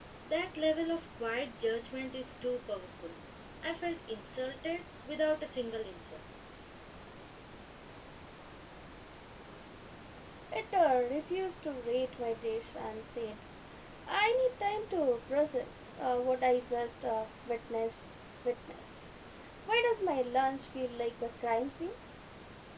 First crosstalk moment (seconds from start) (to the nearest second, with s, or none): none